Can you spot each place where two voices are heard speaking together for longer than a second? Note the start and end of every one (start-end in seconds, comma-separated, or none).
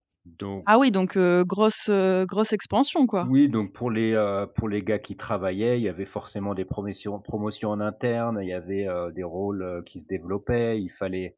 none